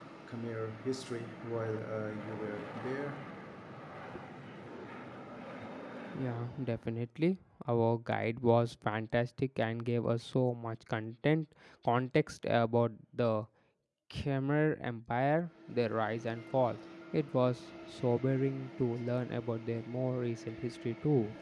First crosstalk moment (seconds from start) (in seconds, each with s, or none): none